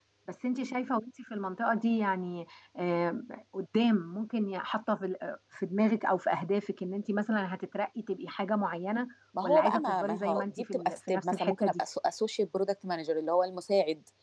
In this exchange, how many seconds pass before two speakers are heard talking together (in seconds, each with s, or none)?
9.3 s